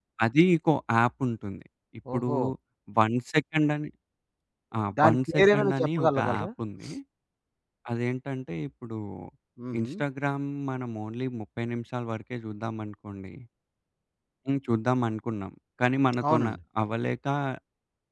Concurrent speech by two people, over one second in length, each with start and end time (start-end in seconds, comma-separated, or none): 5.0-6.5